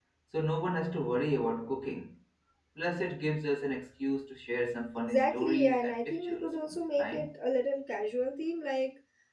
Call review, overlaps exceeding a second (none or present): present